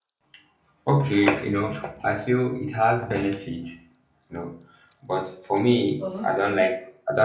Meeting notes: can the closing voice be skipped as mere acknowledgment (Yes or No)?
Yes